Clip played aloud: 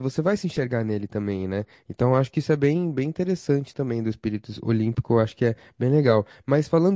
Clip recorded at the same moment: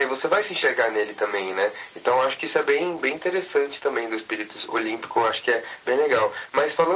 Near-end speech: none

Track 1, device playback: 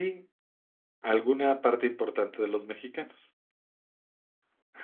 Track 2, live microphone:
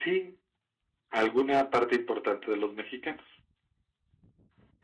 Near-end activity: none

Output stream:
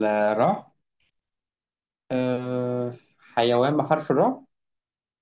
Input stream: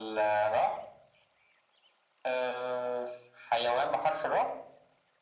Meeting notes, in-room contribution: none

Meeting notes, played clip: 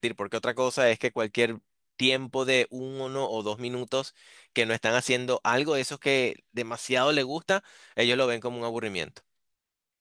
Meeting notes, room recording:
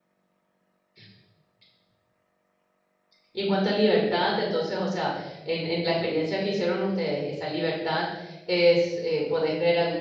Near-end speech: present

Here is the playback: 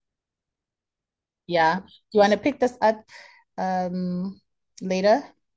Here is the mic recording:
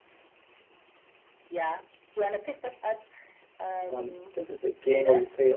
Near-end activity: present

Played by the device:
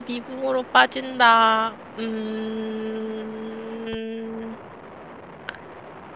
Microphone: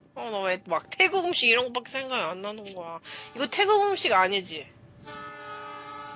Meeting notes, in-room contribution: present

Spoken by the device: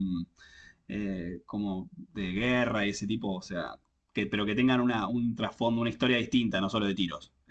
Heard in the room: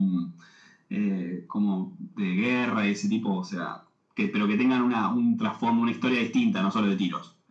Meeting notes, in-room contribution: none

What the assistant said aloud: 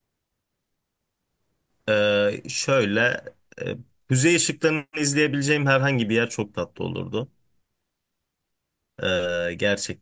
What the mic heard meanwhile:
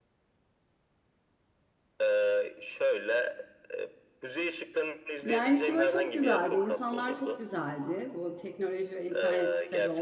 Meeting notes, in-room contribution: present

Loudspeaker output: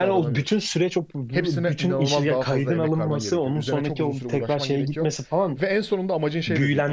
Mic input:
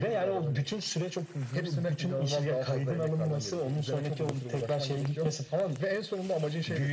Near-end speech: none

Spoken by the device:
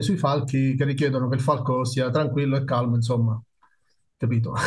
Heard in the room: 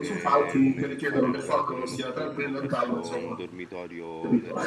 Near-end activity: present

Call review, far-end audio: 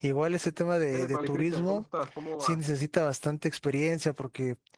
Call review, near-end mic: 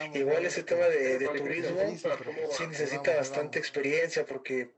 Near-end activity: present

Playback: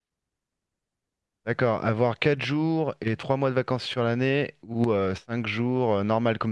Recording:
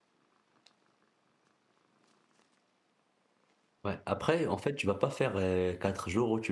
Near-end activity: present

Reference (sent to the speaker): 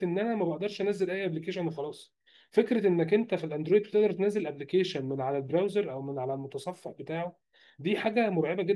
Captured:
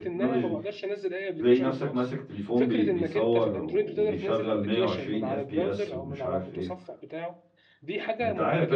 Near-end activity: present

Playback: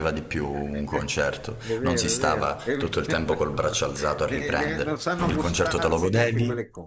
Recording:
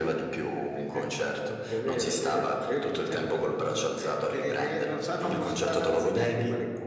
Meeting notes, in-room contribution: none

